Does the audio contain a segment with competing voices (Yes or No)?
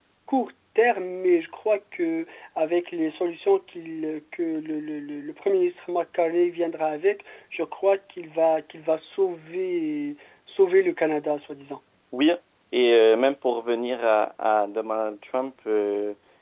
No